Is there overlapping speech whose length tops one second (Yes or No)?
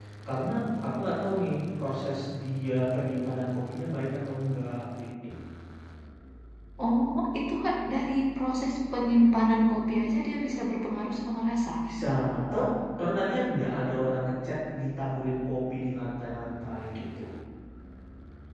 No